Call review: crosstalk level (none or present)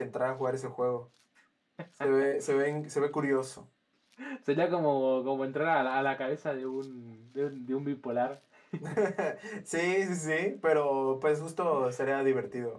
none